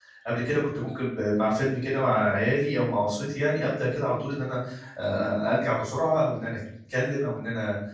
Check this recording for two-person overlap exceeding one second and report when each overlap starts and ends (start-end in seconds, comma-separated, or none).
none